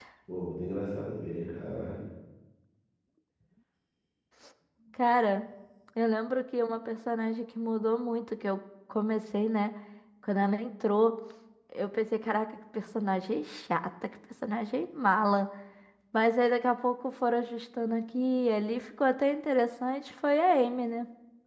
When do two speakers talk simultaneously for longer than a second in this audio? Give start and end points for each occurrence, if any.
none

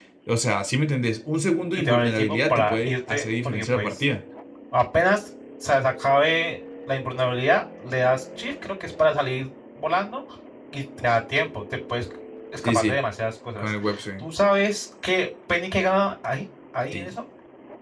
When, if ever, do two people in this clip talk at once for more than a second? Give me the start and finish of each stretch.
1.7-4.0

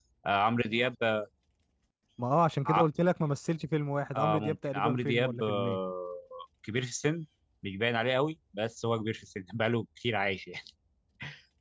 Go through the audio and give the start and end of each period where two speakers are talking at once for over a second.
4.2-5.8

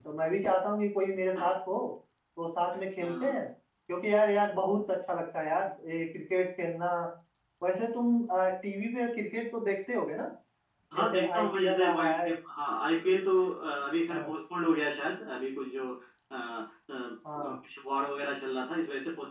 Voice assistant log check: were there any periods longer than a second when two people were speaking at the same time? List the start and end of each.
10.9-12.3

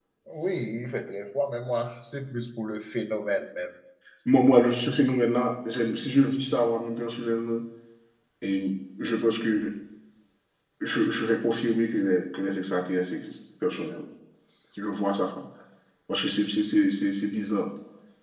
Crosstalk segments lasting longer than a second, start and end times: none

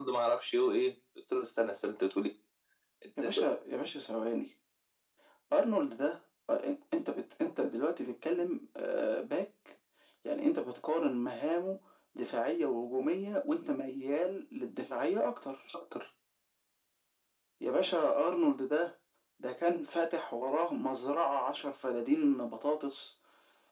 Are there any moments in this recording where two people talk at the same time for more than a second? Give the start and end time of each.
none

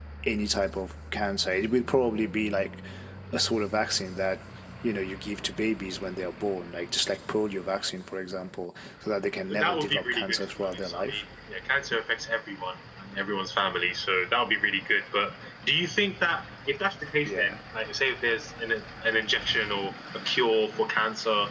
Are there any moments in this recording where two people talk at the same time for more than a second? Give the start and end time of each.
9.6-11.2

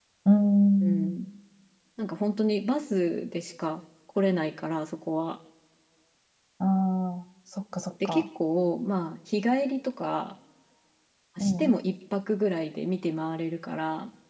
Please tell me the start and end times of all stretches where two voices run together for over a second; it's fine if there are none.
none

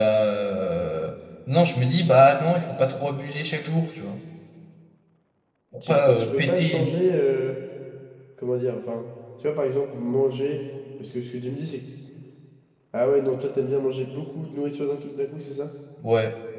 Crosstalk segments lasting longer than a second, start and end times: 5.8-7.0

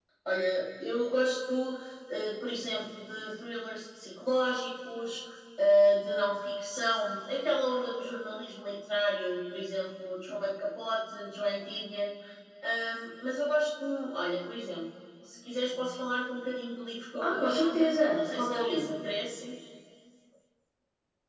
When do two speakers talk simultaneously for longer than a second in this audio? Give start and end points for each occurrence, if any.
17.2-19.0

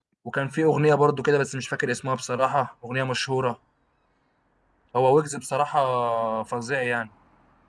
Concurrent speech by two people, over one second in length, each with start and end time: none

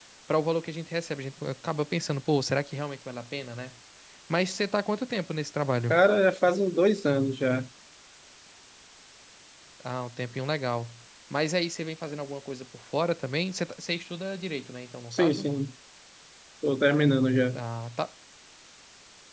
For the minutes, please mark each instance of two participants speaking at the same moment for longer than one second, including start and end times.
none

